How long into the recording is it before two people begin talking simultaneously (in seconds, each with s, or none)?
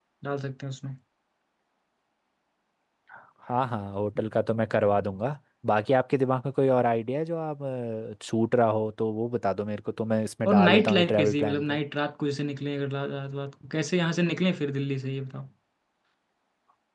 10.4 s